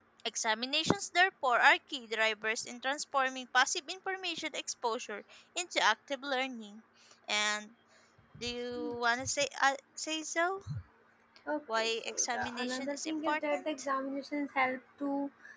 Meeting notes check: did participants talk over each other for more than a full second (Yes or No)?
Yes